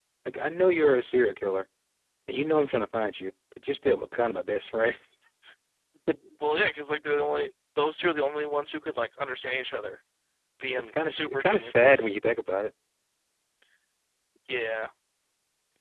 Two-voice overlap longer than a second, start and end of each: 10.7-12.1

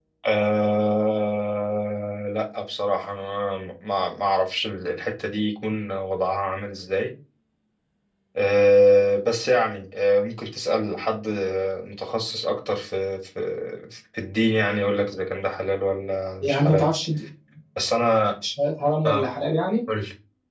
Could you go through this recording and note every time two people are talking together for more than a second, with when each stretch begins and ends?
none

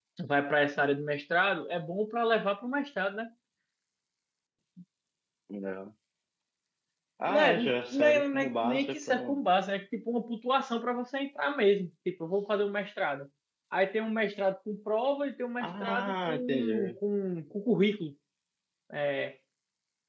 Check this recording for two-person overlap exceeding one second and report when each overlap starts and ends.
7.3-9.4, 15.6-17.0

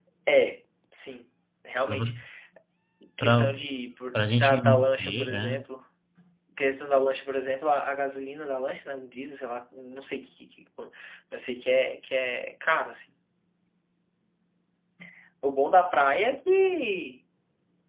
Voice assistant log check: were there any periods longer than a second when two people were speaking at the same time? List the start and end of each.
4.1-5.6

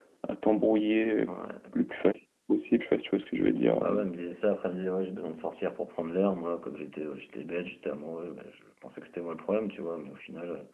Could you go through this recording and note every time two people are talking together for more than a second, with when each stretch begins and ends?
none

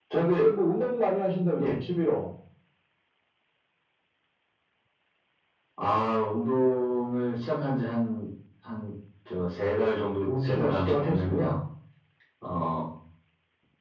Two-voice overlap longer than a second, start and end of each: 9.8-11.6

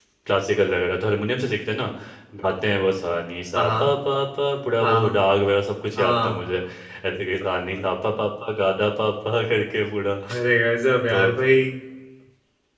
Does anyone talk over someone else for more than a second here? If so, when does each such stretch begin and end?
none

